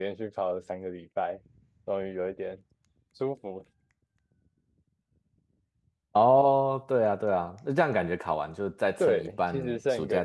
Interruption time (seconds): 9 s

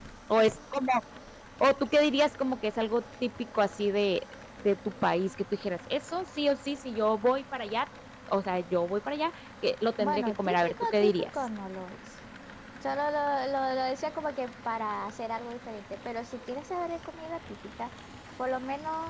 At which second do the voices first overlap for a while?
10 s

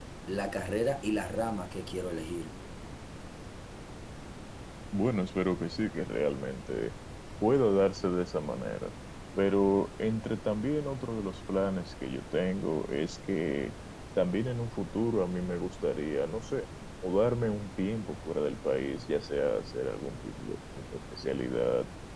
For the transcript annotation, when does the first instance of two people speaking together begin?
none

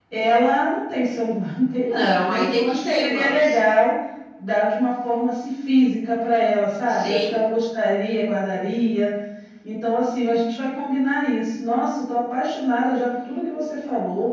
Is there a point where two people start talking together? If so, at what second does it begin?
2 s

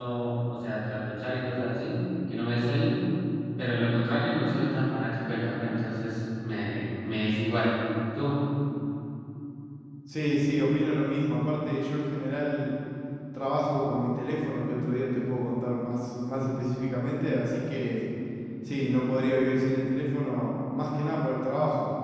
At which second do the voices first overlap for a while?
none

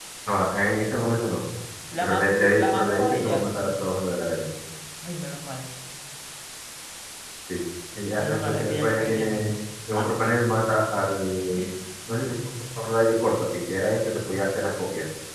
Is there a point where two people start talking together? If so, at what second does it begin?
2 s

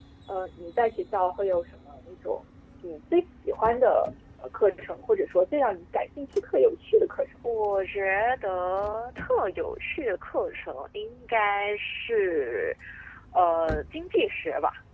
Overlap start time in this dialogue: none

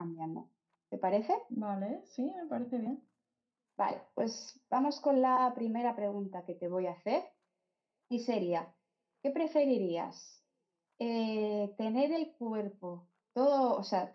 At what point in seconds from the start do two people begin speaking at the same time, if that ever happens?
none

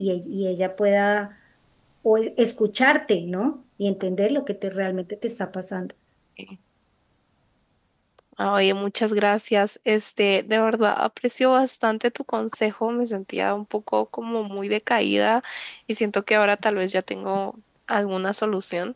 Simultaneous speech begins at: none

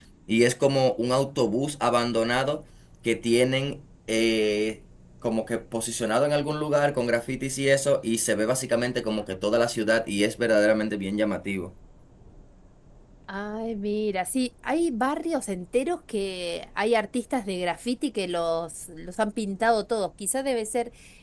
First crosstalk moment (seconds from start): none

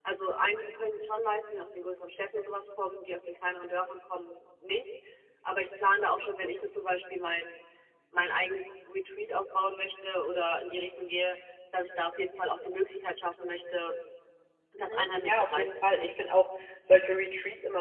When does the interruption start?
15 s

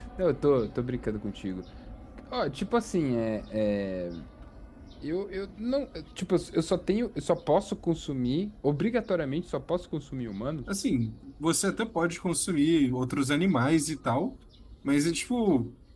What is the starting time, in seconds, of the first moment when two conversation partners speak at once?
none

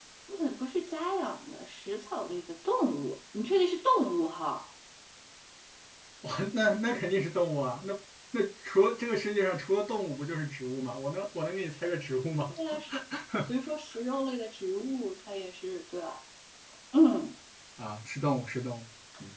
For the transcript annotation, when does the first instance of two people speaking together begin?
none

